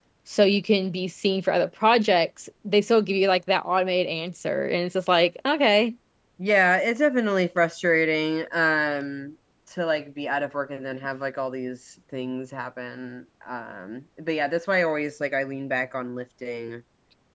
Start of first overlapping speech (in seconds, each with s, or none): none